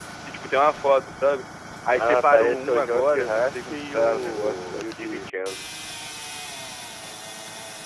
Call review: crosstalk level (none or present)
present